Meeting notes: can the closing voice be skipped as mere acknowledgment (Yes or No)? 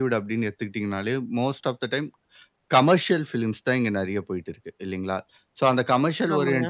Yes